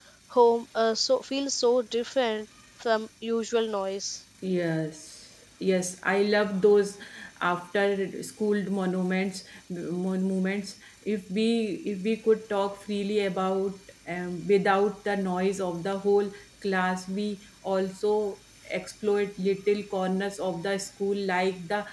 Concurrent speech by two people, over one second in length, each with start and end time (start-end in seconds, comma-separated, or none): none